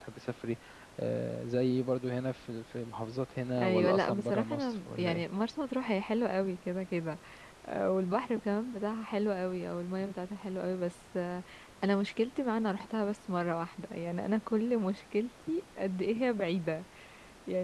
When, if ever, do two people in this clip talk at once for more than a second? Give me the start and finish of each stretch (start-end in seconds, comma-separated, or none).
3.6-5.2